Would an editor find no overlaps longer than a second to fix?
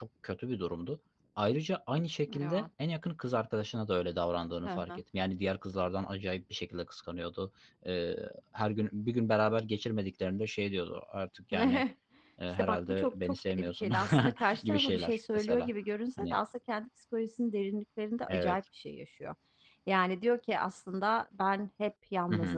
No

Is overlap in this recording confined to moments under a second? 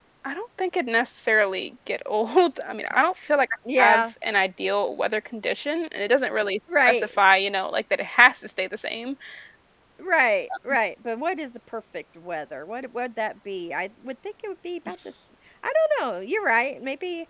Yes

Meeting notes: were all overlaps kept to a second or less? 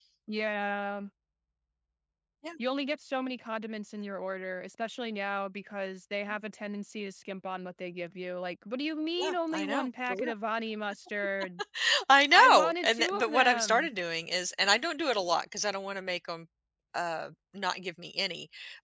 No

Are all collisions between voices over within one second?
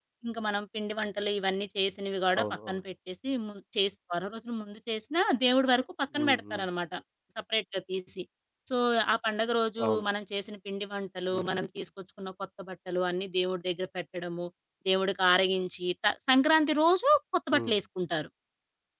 Yes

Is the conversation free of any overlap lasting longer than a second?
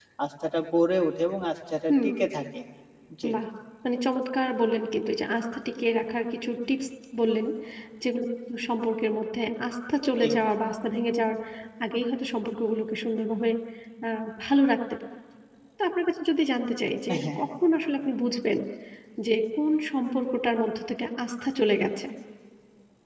Yes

